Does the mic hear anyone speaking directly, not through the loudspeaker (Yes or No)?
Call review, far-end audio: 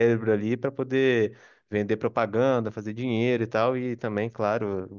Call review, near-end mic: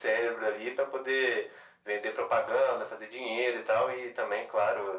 No